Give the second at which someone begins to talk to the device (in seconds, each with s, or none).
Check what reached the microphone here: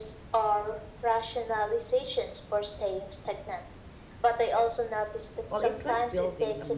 5.5 s